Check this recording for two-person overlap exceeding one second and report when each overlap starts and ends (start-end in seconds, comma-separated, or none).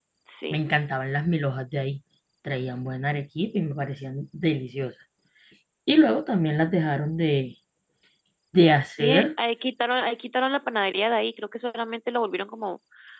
none